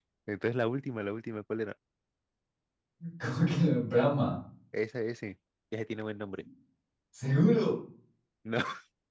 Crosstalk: none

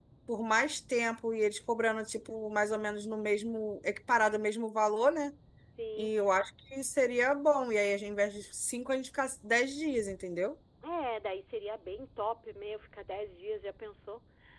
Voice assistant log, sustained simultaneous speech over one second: none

